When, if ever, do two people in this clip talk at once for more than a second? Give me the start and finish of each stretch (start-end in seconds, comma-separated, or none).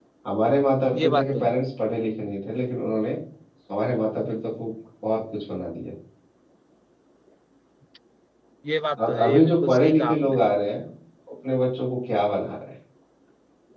9.0-10.4